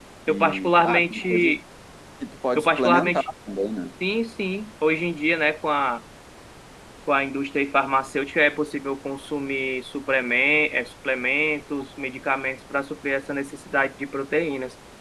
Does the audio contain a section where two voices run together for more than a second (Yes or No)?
Yes